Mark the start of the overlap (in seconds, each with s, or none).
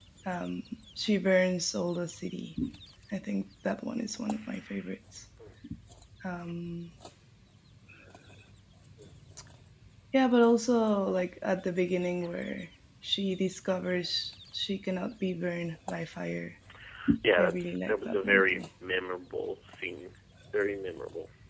17.4 s